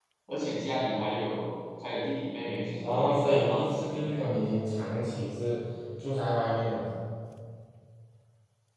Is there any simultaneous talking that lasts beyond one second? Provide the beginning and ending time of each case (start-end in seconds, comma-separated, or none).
2.8-4.2